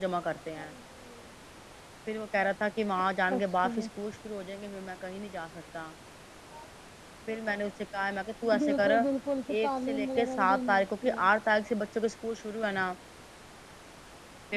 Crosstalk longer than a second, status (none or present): present